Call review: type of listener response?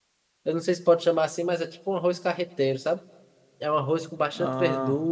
listening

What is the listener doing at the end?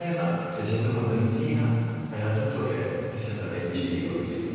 taking over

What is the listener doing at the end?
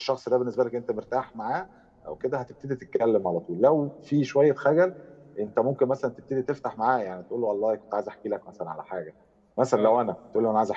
listening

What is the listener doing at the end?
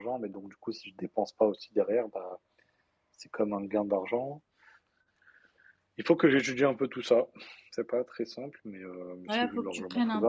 taking over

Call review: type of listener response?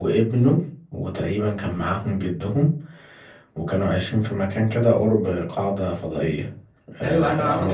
taking over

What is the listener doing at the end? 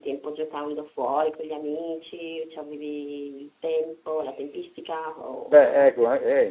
taking over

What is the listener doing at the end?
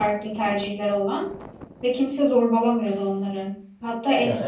listening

